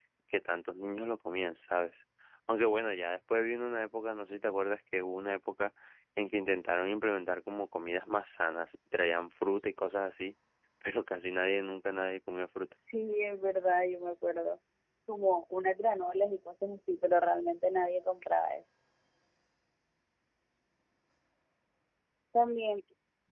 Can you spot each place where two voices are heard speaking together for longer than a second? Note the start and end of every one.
none

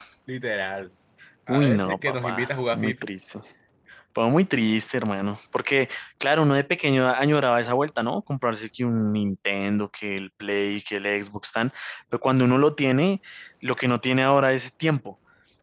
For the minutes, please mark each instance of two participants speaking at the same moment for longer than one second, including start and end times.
1.5-3.1

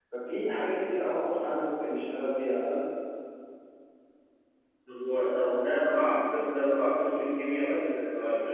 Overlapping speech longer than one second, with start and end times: none

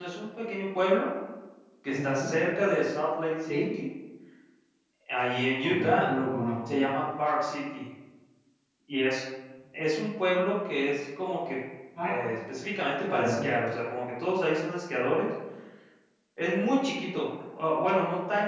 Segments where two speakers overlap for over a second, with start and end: none

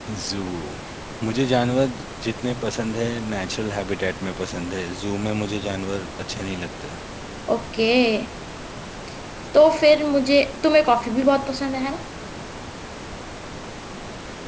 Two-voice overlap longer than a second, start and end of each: none

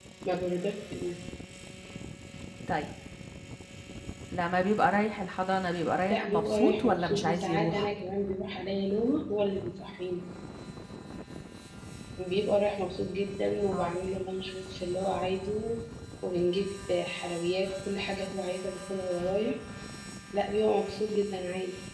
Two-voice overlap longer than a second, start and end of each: 6.1-7.9

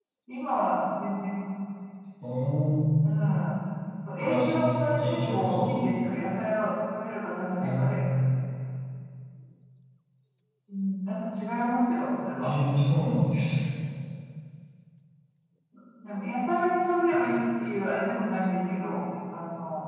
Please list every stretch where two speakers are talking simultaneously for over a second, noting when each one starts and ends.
4.2-5.7

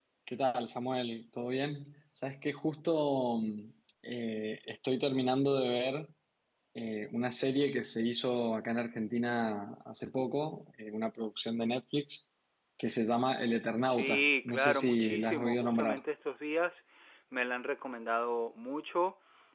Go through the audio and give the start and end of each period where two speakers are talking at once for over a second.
13.8-16.0

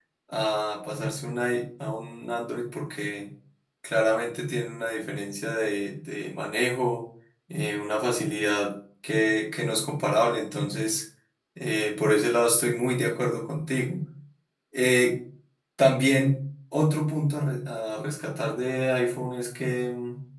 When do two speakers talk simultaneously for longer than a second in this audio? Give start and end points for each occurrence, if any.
none

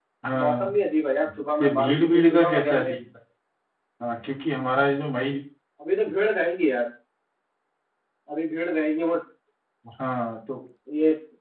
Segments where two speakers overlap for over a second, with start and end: 1.6-2.9

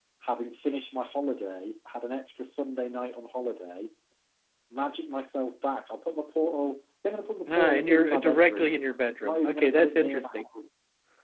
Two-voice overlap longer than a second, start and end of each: 7.5-8.7, 9.2-10.5

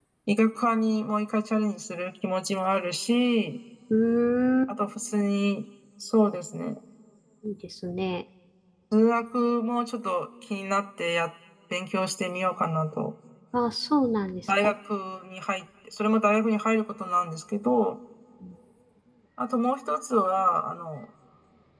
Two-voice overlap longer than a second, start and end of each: none

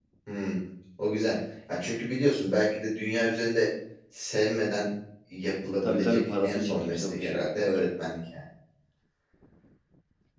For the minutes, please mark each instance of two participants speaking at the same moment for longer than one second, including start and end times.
5.8-7.6

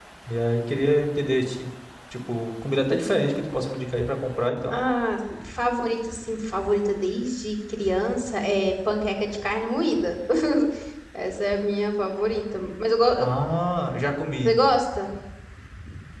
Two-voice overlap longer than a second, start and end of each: none

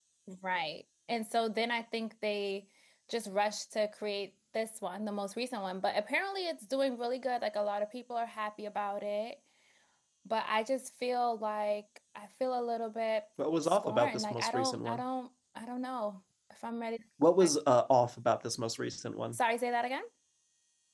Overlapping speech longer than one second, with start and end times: 13.6-15.0

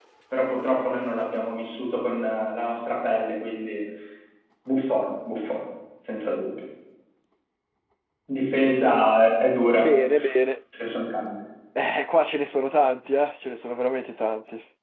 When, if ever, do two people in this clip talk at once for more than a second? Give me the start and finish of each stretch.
none

